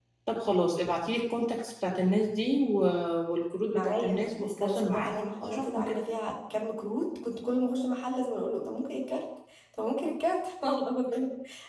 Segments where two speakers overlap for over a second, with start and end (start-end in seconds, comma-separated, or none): 3.7-5.9